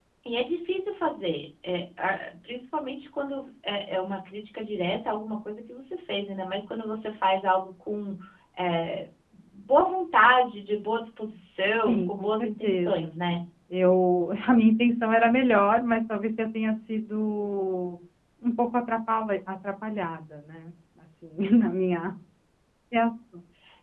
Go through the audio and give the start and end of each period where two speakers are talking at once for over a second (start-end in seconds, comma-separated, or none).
11.8-13.1